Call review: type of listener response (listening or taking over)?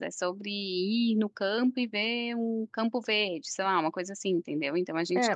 taking over